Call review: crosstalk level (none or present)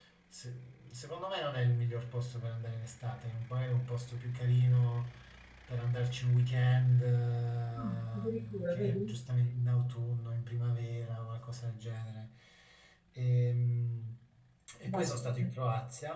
present